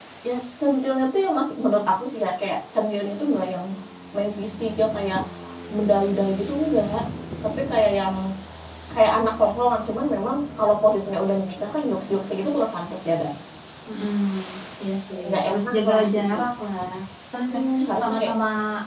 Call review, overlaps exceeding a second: present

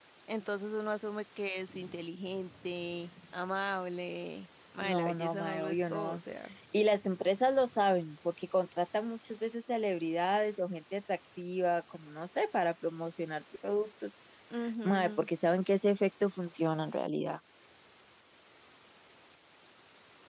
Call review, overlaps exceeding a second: present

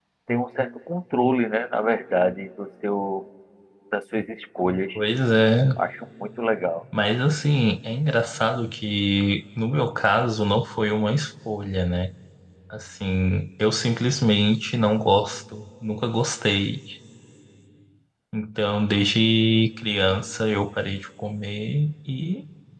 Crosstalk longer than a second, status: none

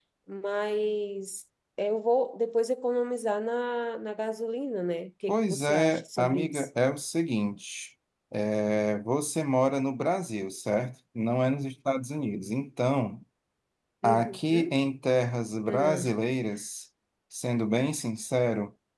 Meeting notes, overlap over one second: present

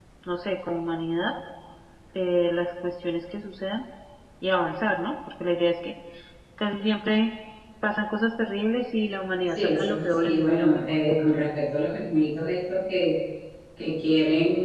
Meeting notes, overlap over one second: present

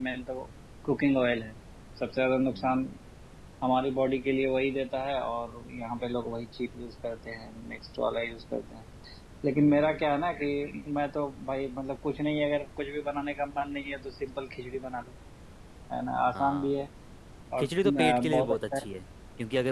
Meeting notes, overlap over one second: present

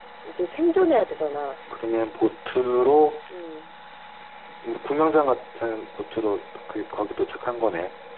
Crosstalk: none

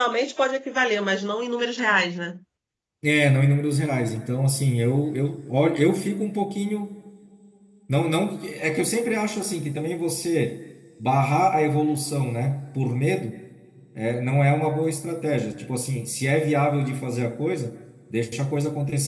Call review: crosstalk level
none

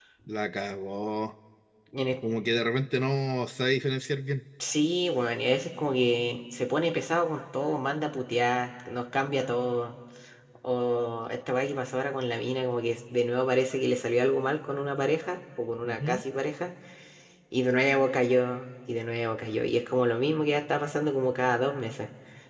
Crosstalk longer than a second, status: none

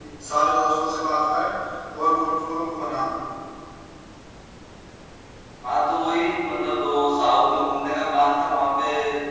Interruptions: none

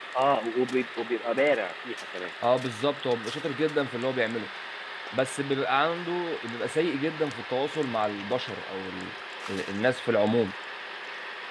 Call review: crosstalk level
none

